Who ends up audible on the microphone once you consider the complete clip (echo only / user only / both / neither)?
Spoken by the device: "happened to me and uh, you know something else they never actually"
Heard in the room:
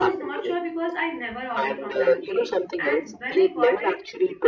both